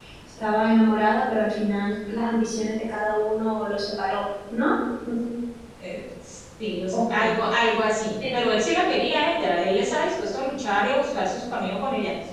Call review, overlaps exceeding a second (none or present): none